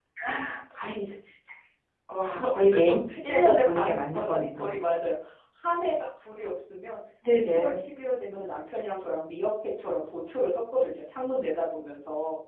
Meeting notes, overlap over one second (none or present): present